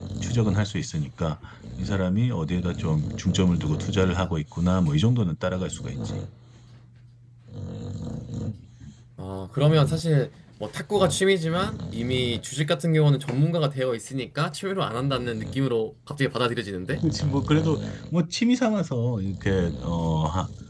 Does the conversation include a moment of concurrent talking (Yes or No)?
No